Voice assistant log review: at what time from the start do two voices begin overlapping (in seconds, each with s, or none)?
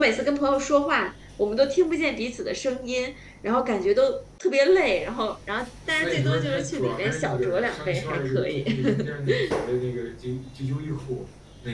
5.8 s